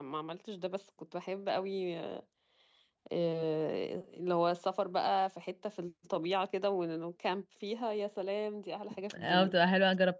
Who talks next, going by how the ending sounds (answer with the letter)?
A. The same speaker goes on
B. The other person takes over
B